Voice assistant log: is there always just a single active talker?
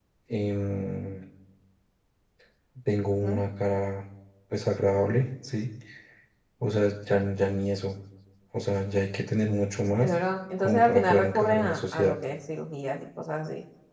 No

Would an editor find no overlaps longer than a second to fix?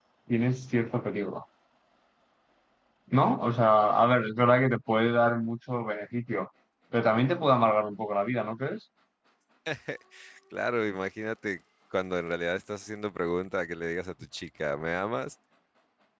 Yes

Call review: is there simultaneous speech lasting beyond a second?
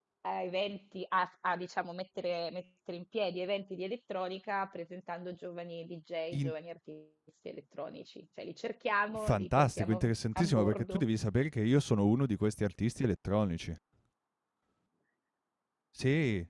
Yes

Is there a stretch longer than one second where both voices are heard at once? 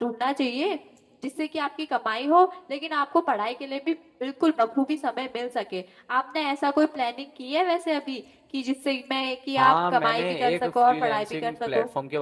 Yes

